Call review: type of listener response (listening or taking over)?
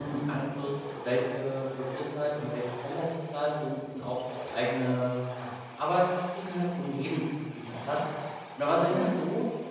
listening